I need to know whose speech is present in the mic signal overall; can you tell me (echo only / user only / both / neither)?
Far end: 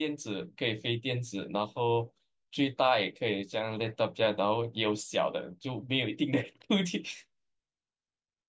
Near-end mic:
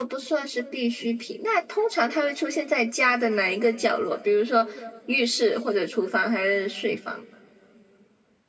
user only